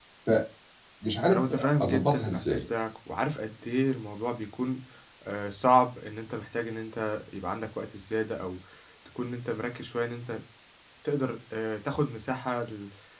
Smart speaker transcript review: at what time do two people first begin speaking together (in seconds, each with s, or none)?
1.3 s